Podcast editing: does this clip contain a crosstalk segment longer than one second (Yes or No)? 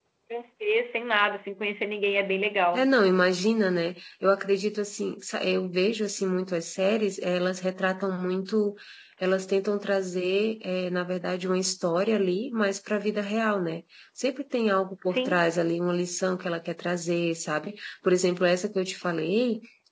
No